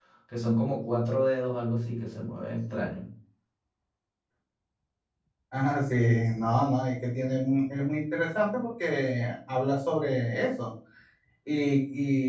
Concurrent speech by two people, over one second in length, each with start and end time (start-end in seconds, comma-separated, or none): none